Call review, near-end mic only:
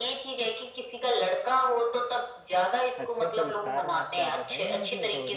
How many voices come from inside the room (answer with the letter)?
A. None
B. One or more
B